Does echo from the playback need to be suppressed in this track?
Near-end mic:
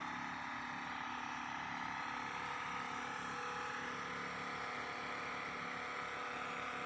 No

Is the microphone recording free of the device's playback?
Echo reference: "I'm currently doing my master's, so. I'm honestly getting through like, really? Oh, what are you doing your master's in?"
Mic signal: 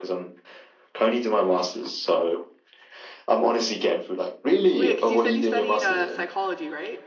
No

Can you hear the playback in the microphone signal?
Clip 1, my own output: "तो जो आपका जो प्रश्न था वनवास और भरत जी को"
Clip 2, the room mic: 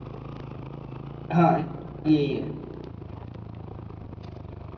No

